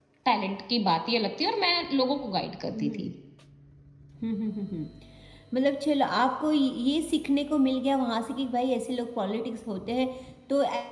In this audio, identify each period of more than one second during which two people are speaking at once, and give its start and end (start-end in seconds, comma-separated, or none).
none